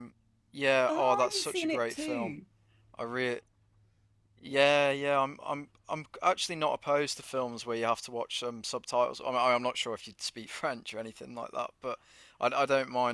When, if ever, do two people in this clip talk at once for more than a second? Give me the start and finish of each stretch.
0.9-2.3

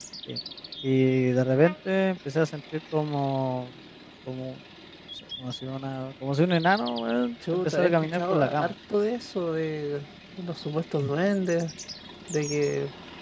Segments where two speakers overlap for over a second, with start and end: 7.5-8.7

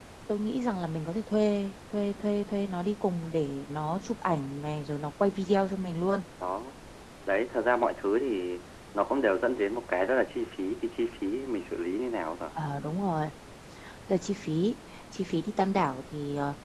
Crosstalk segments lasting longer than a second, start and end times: none

